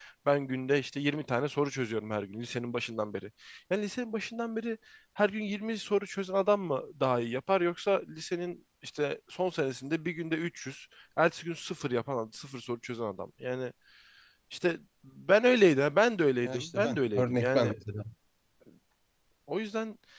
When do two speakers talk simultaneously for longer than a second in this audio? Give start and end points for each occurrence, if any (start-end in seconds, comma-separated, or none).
16.4-17.8